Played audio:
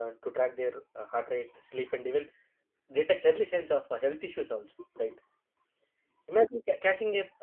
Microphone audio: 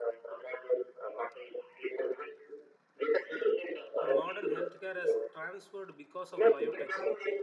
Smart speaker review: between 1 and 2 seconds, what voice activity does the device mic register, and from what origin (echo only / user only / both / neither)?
echo only